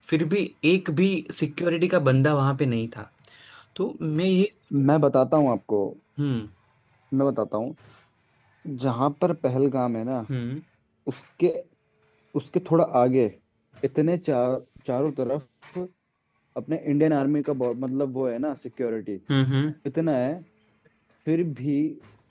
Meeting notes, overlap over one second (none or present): none